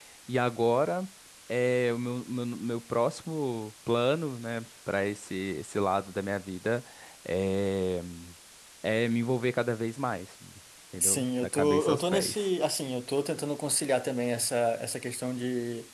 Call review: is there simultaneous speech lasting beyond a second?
Yes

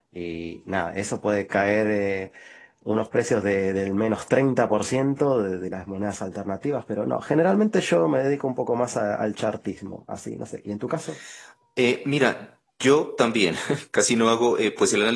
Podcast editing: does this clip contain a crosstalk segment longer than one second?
No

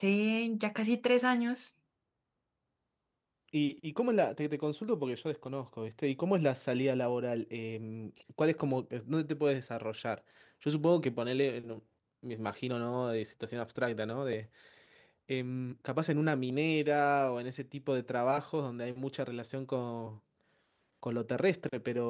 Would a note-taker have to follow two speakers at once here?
No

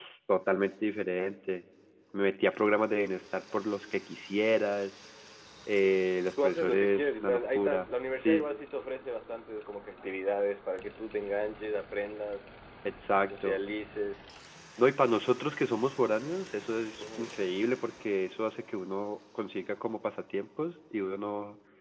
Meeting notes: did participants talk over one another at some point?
Yes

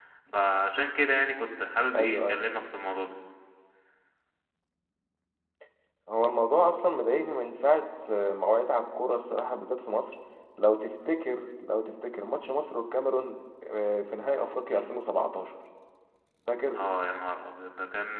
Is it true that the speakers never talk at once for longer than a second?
Yes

